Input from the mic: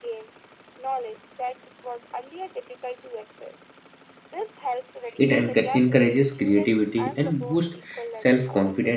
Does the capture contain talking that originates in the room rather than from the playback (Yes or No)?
Yes